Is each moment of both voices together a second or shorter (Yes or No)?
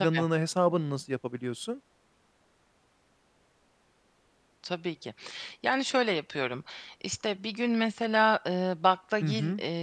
Yes